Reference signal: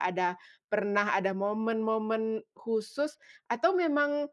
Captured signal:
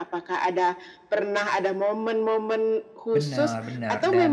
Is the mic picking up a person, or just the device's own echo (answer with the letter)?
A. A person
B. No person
A